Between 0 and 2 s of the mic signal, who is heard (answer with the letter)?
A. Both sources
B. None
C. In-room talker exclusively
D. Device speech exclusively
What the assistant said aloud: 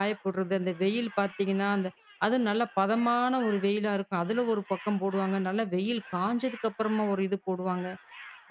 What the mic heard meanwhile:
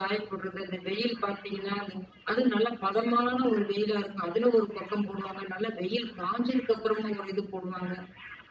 D